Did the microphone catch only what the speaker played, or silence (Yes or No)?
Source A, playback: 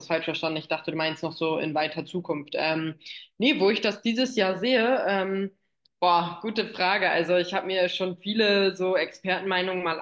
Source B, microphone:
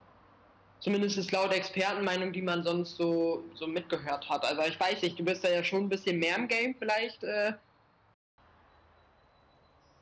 No